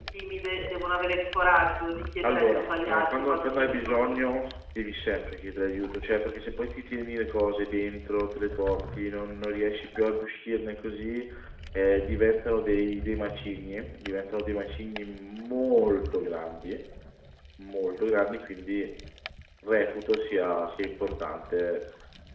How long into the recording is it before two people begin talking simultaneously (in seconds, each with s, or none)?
2.2 s